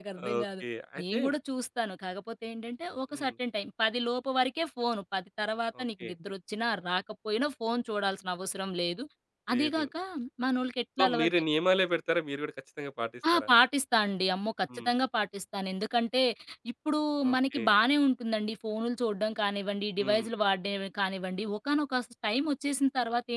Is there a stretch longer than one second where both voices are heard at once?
No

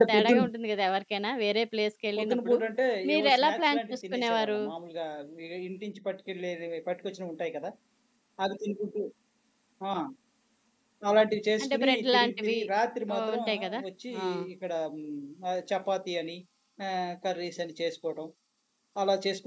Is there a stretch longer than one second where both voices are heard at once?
Yes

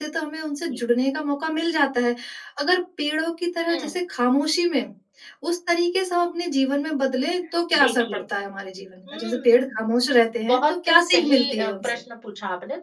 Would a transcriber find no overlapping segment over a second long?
No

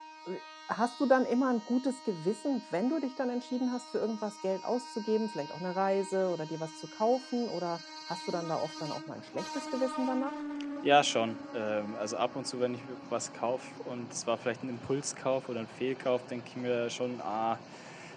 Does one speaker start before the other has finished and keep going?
No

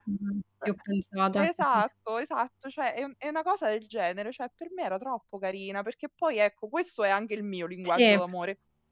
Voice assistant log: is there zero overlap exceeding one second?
Yes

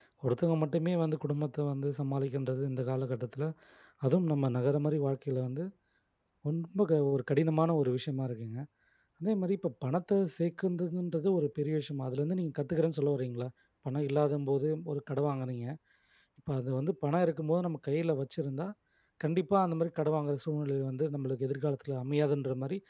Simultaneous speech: No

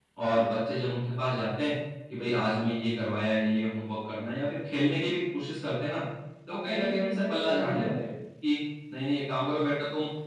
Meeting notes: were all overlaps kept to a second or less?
No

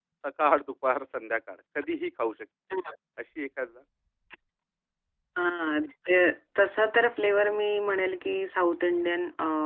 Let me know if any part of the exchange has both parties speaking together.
No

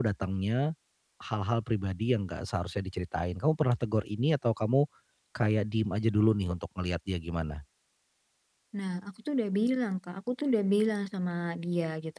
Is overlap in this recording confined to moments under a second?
Yes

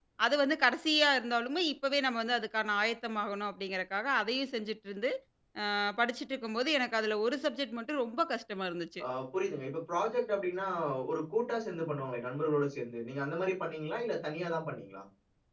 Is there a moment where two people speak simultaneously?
No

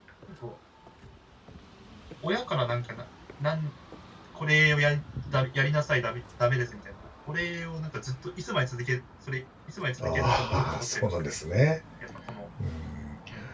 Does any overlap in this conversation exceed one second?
Yes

